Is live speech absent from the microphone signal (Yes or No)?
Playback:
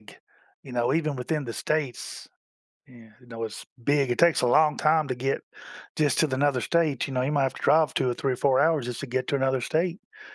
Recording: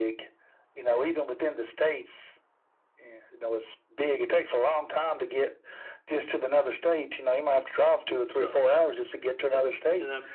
No